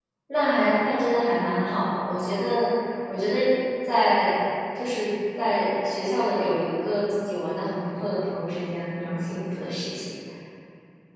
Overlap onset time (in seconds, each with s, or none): none